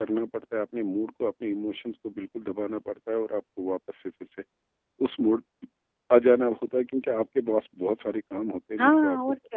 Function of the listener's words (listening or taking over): taking over